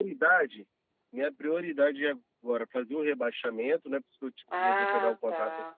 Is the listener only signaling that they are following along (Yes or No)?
No